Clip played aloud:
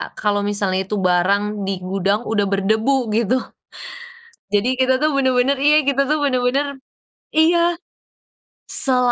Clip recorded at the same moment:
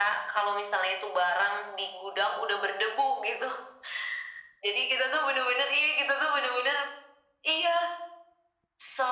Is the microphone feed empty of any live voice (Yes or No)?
Yes